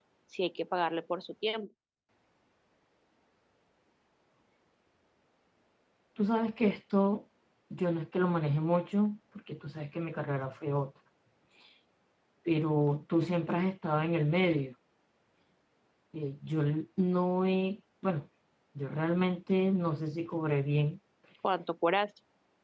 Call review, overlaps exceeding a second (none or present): none